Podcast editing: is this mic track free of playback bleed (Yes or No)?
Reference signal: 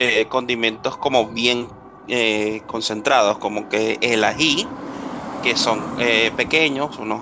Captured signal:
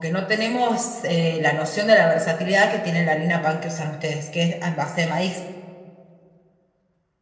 Yes